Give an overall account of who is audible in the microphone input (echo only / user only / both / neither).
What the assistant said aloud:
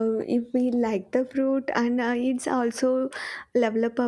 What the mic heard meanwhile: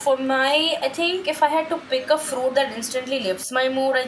user only